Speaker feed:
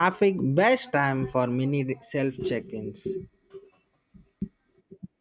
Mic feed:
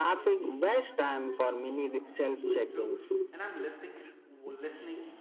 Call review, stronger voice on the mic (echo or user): echo